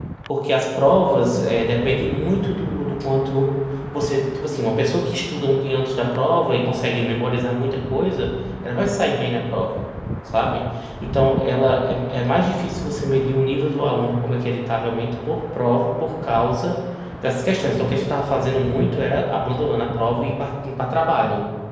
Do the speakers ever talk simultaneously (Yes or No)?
No